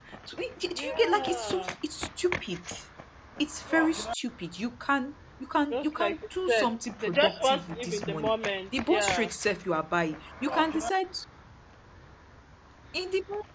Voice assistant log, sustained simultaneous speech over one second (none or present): present